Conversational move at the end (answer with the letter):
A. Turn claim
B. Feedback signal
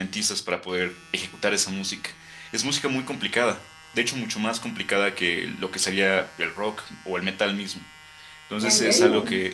B